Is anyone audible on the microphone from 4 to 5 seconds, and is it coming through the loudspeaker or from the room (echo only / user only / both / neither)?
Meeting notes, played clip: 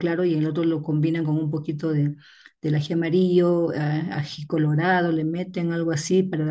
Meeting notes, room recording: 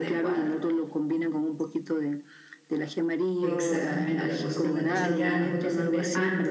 both